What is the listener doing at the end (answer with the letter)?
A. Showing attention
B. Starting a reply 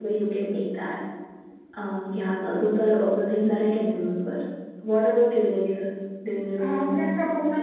B